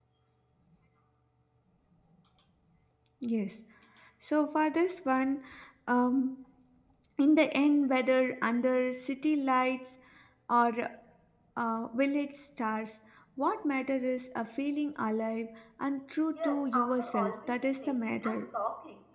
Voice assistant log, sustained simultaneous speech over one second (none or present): present